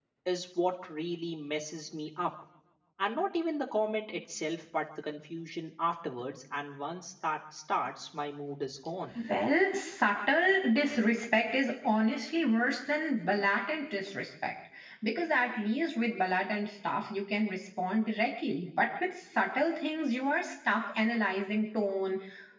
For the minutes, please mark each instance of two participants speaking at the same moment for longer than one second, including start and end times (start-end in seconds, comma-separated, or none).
none